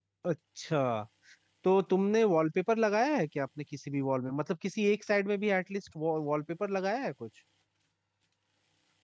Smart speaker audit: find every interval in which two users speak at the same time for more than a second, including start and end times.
none

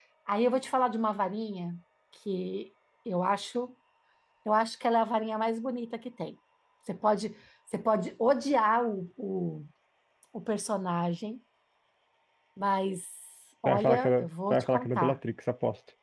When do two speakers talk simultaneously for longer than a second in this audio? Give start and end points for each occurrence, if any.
13.6-15.2

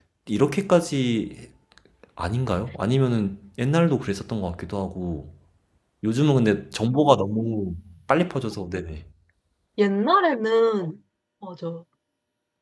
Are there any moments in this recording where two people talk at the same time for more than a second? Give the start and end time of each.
none

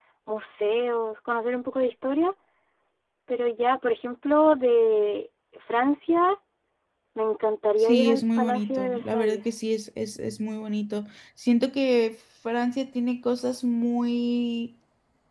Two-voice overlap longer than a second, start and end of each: 7.8-9.4

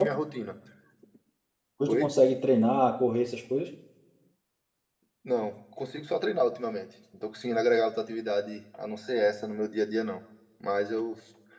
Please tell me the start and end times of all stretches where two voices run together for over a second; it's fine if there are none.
none

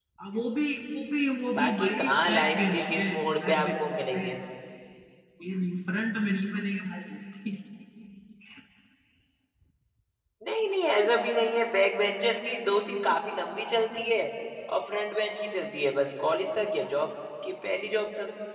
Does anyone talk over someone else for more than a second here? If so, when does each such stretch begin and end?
1.6-4.3

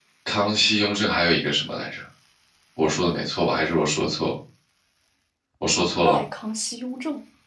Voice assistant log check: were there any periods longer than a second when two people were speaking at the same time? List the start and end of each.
none

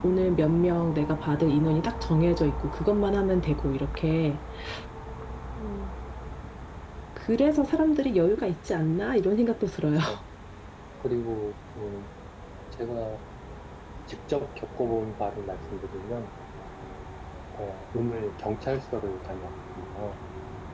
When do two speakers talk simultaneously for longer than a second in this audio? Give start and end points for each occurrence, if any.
none

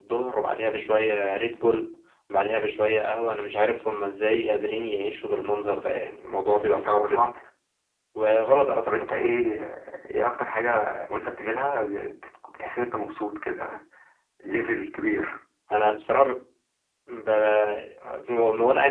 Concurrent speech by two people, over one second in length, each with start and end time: none

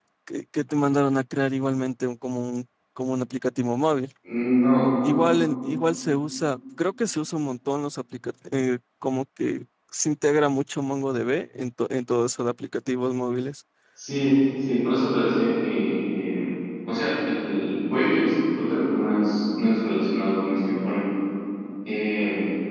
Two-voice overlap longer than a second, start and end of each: none

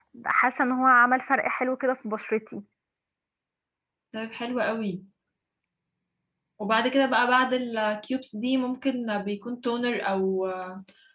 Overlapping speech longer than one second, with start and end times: none

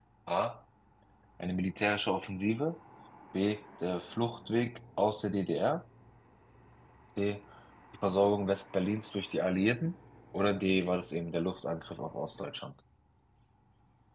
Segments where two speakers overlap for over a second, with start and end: none

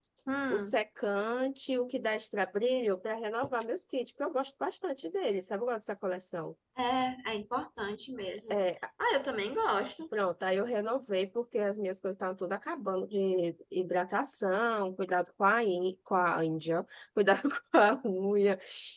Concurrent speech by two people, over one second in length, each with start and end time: none

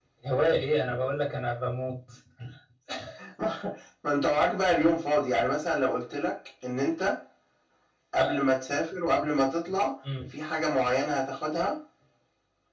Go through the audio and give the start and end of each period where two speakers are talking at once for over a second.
none

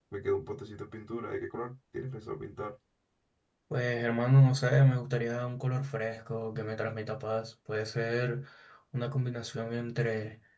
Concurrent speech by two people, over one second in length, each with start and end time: none

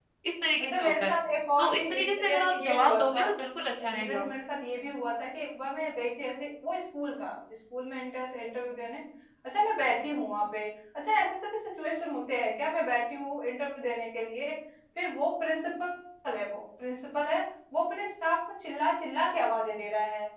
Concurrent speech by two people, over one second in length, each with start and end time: 1.6-3.2

